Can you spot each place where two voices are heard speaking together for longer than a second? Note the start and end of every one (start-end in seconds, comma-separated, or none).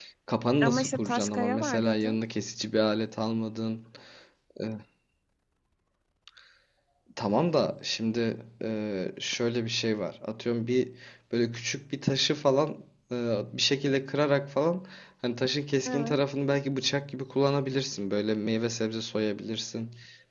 0.6-2.2